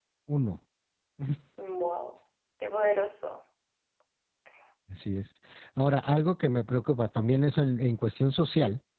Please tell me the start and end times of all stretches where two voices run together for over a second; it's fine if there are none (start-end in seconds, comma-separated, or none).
none